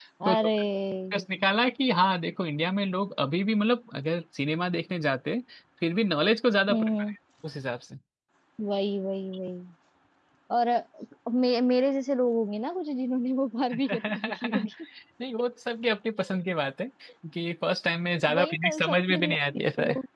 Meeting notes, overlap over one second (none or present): present